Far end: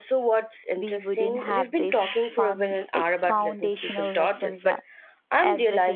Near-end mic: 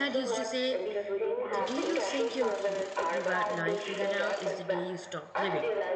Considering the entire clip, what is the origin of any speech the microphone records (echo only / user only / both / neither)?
both